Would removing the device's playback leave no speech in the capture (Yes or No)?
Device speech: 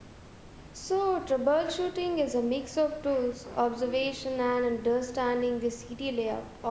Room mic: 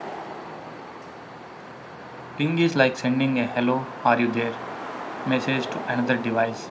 No